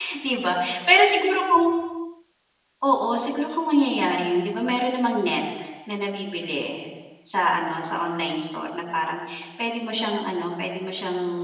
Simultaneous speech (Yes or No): No